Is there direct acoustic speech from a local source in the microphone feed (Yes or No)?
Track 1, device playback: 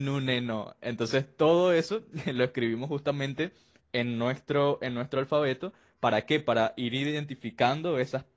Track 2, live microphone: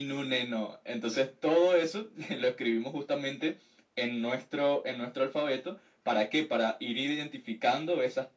No